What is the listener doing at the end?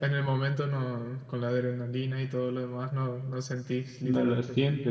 taking over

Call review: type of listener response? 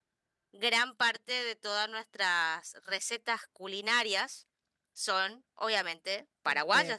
taking over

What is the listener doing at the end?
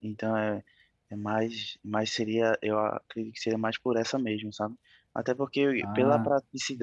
listening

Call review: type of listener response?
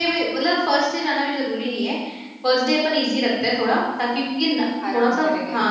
listening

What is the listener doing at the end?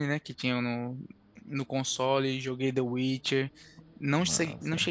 listening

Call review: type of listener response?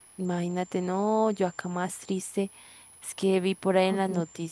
listening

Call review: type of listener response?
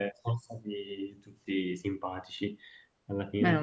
listening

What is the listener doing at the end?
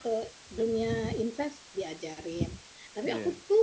listening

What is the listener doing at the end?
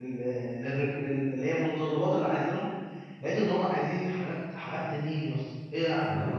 taking over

